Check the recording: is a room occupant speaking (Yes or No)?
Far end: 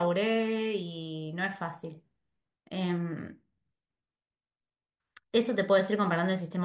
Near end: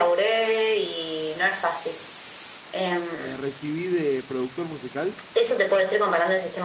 Yes